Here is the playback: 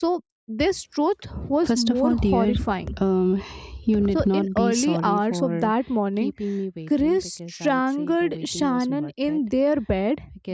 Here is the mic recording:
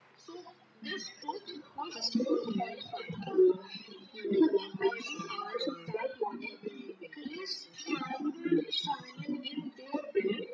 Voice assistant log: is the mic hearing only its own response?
Yes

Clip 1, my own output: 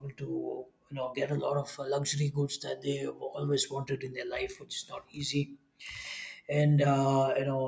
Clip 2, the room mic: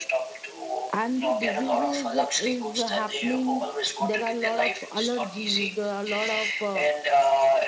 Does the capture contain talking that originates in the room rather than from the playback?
Yes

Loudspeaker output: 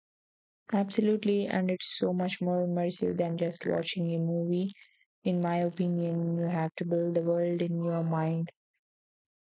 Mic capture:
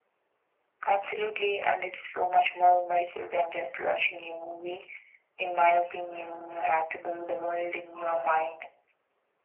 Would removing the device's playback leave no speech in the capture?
Yes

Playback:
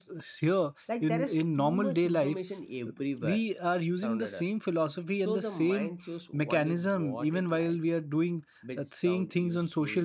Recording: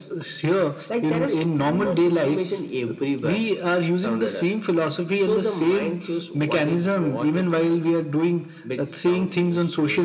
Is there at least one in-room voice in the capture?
No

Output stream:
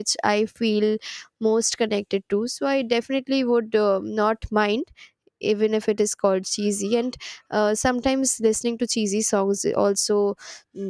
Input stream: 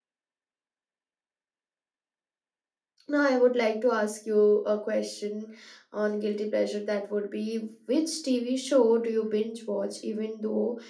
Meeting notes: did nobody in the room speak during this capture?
No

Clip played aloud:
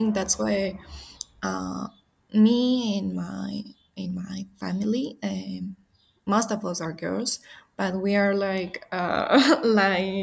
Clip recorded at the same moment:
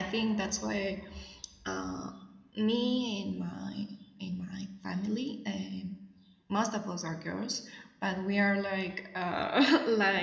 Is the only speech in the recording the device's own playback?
Yes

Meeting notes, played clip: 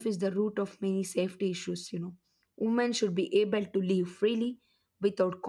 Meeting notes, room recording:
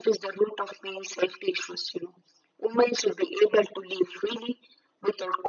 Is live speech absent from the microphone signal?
Yes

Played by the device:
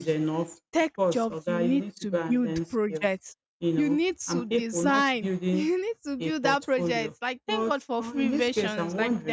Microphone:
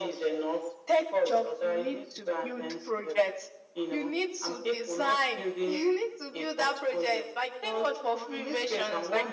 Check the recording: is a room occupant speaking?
No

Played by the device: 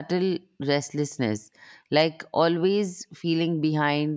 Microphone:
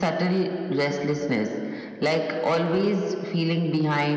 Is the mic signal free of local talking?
Yes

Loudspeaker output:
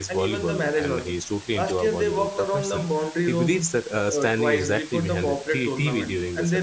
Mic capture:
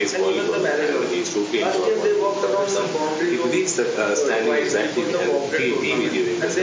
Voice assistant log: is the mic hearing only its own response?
Yes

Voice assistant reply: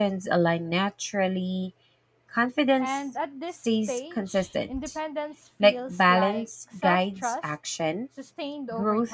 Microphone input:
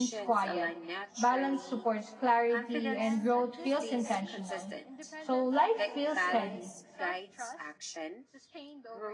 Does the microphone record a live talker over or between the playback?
Yes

